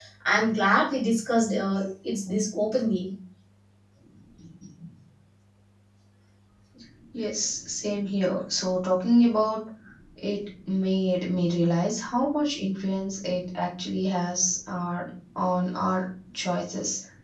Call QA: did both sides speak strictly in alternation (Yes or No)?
Yes